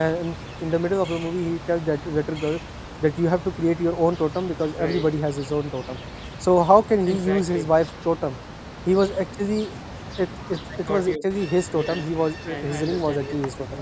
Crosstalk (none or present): present